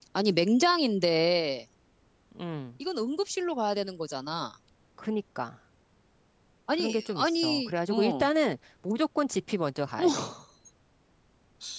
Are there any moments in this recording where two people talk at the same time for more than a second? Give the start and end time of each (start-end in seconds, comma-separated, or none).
6.7-8.3